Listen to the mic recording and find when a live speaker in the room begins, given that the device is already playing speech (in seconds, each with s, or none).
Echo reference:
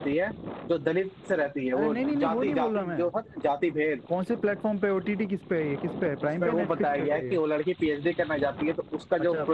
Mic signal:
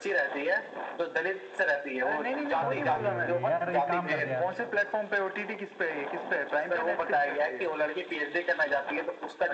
2.6 s